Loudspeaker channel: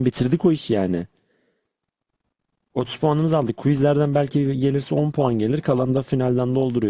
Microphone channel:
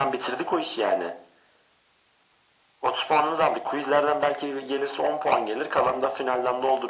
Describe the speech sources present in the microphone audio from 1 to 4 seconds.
echo only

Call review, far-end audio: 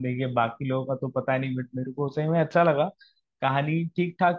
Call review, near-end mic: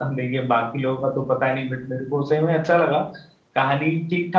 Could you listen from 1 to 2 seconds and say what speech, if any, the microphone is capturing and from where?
echo only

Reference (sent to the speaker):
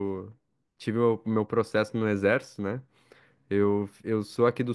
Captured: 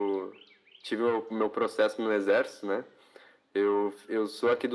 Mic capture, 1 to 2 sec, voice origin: echo only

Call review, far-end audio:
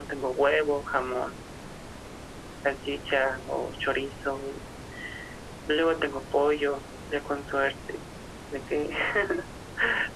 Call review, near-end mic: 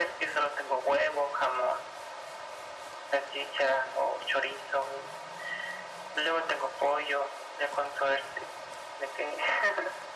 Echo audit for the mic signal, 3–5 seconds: echo only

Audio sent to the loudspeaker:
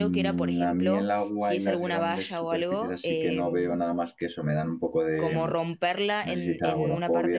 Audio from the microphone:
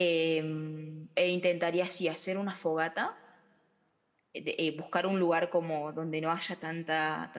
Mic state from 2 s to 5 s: user only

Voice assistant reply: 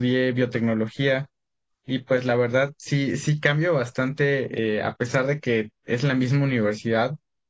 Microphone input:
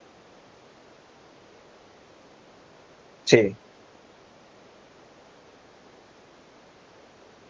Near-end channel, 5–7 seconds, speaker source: neither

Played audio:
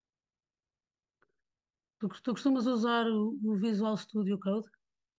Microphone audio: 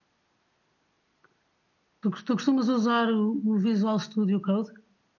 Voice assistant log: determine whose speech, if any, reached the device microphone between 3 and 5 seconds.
echo only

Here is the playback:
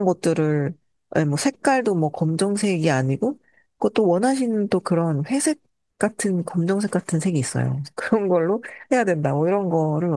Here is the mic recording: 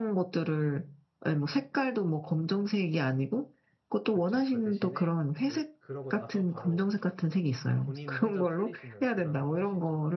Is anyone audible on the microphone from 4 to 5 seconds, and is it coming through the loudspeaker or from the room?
both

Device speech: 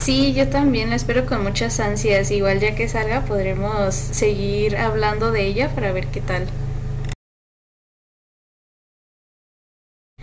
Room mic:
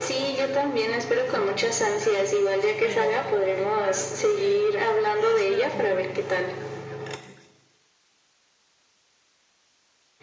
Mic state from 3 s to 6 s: both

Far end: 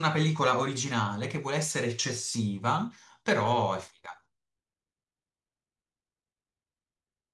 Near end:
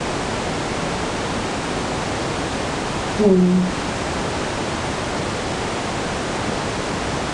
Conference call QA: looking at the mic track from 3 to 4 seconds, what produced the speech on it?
user only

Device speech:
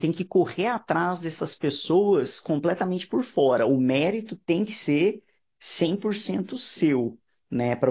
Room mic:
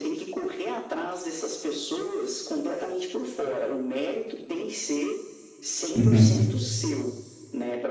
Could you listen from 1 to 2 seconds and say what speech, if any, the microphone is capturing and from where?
echo only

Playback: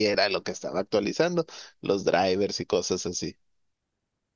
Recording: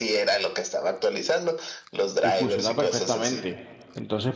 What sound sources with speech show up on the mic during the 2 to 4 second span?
both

